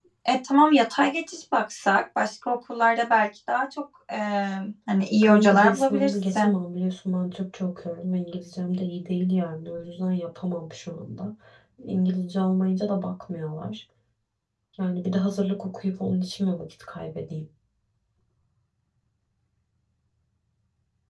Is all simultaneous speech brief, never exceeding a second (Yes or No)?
No